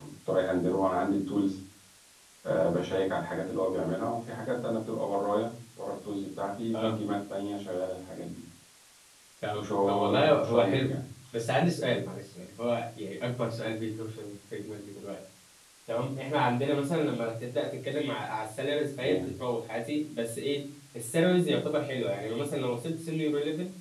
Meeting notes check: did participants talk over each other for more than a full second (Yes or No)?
Yes